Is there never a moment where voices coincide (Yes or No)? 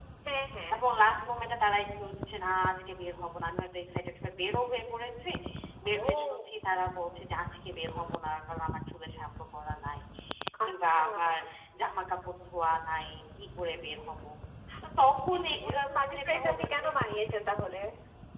No